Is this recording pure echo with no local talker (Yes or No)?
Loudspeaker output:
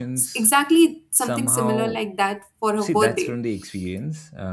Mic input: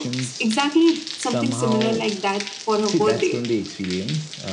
Yes